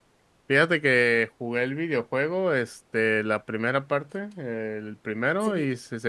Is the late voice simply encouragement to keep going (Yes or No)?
Yes